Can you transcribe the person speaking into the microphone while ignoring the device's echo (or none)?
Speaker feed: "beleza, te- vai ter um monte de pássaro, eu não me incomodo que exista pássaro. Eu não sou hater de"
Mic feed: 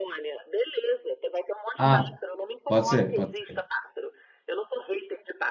Ah, pode ser, pode ser.